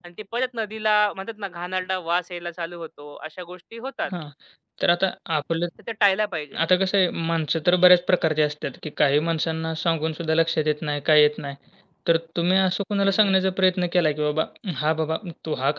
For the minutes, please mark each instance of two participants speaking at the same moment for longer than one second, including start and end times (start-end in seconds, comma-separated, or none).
none